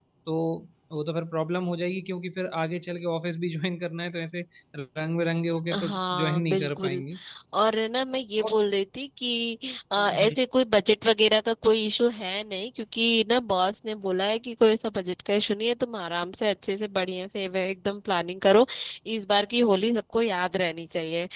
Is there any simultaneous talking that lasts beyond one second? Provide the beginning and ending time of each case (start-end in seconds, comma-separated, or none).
5.7-7.0